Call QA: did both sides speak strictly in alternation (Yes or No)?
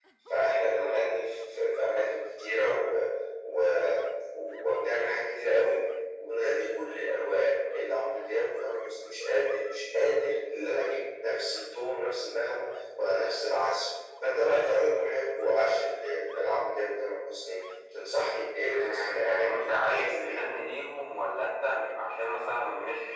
No